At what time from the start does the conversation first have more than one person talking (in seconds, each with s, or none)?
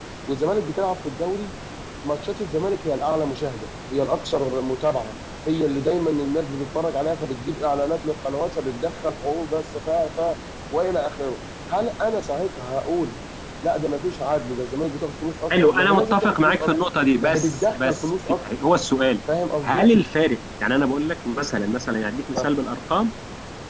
15.5 s